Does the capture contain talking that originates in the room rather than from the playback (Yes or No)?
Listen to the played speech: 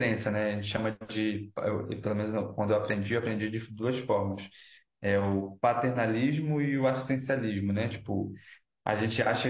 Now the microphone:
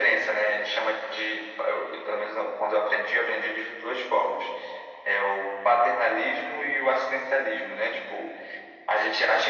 No